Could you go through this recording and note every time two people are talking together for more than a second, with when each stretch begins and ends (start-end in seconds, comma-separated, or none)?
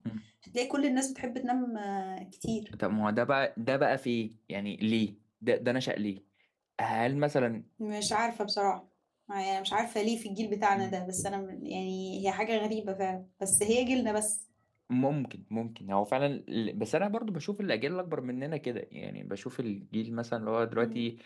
none